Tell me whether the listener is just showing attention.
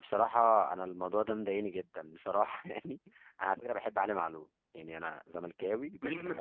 No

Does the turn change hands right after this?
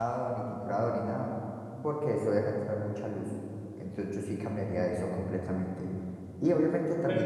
No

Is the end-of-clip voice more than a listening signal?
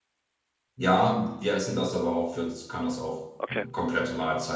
No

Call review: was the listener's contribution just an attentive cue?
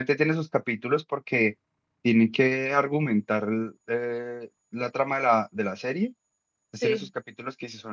Yes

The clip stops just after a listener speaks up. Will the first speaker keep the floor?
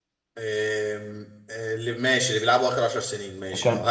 No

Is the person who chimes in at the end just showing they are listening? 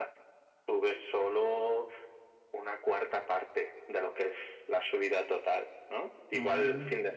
Yes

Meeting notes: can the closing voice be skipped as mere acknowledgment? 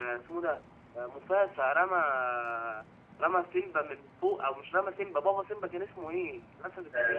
No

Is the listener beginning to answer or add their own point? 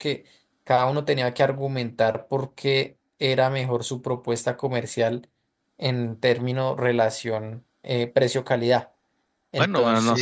Yes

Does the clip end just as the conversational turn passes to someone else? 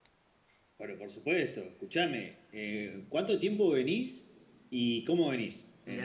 Yes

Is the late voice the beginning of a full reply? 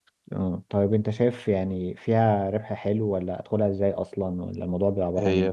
Yes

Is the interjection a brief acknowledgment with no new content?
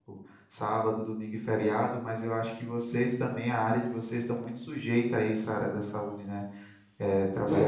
Yes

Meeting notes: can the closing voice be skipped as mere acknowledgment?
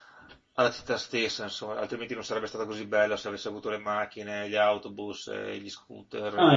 No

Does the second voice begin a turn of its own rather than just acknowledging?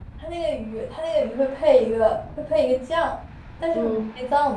No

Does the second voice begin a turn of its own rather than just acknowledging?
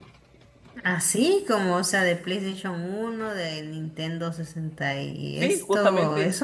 Yes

